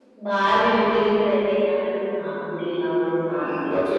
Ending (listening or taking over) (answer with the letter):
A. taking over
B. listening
A